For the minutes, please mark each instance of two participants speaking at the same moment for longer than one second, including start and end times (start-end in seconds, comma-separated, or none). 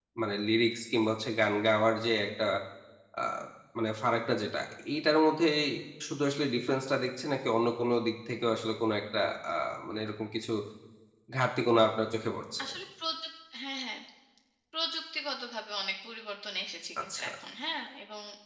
none